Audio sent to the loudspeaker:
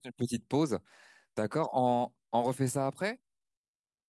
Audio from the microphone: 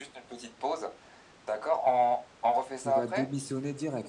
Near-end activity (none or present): present